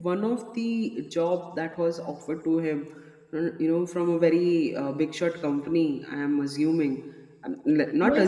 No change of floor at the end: No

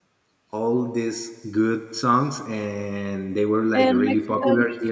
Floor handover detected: No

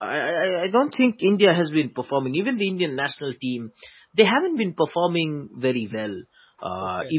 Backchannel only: Yes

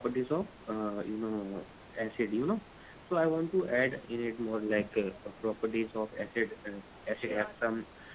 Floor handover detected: No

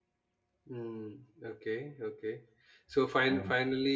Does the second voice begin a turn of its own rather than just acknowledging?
No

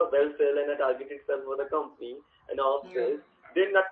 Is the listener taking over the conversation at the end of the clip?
No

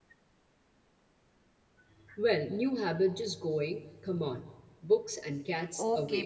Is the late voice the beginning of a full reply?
Yes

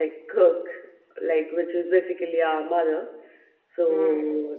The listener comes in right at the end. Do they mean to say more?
No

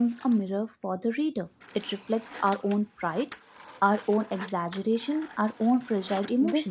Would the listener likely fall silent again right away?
No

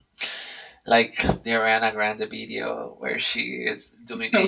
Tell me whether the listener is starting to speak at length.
No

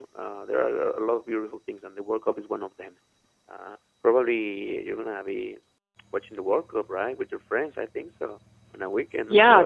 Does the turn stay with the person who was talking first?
No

